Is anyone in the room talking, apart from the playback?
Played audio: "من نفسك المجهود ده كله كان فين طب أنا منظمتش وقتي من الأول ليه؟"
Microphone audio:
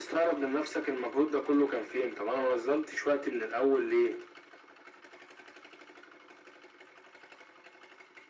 No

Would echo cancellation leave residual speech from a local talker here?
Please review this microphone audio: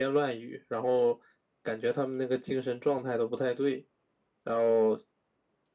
No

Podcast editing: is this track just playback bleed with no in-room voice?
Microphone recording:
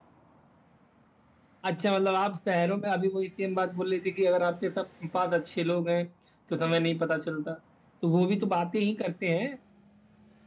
Yes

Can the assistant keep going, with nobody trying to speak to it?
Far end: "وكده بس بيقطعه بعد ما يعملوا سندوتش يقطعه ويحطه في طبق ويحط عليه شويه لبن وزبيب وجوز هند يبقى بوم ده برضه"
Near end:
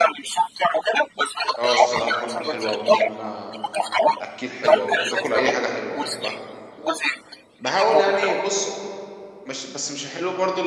No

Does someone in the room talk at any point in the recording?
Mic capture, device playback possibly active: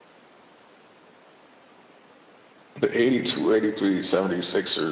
Yes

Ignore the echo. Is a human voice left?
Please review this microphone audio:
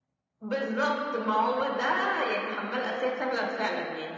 No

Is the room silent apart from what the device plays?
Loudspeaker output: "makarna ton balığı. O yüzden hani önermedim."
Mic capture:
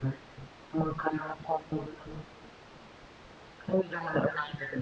Yes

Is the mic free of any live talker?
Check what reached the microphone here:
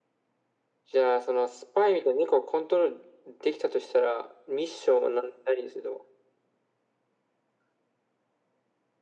Yes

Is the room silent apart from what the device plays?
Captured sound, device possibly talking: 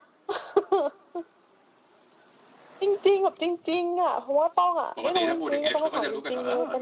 No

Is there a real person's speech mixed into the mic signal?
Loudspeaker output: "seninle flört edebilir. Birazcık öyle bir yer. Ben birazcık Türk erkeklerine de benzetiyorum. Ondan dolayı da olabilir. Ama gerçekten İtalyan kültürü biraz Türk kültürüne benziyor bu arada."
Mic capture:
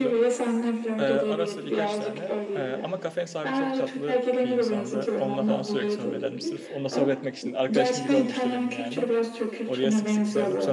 Yes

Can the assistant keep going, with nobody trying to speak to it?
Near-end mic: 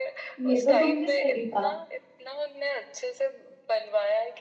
No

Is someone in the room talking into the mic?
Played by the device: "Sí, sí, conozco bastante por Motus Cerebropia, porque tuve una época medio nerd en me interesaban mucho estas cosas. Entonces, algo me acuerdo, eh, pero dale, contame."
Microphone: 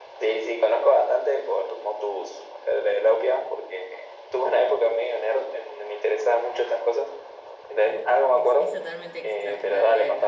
Yes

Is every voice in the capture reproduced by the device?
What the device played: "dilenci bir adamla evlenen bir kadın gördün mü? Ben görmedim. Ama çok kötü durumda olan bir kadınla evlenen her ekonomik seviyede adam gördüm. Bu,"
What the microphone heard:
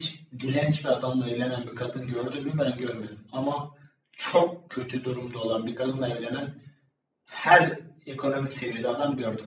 Yes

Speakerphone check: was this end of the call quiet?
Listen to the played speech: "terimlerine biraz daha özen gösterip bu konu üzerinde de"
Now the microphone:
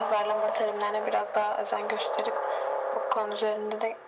Yes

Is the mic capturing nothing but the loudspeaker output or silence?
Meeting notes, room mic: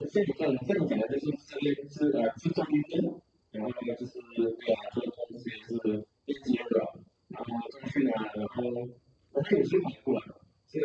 Yes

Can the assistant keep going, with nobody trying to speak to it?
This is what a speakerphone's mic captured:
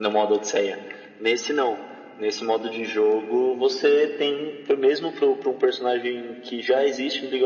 Yes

